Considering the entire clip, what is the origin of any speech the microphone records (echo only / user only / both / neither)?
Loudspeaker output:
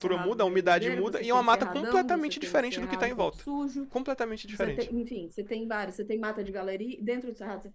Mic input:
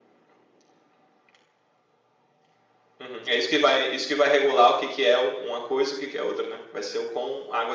user only